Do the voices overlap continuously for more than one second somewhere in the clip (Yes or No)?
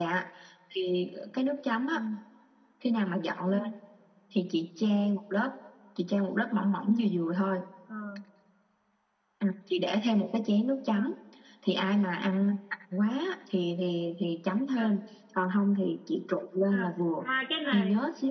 No